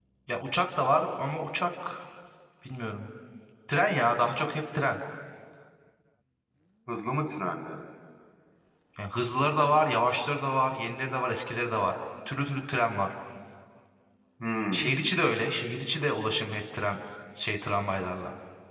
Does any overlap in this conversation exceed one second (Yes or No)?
No